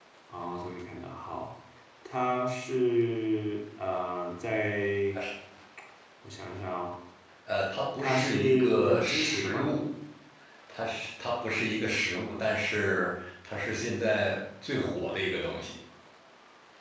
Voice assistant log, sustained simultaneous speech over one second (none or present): present